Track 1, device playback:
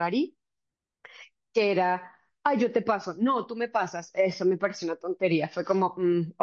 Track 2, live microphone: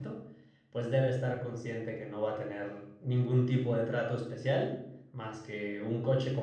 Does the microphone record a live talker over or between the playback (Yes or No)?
Yes